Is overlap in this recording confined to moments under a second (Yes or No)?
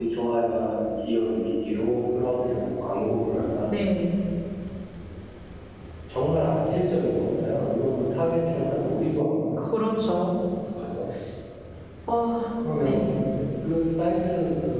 Yes